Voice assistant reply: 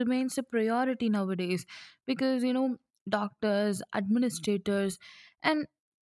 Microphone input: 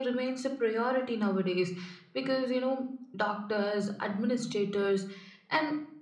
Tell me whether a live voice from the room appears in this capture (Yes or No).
No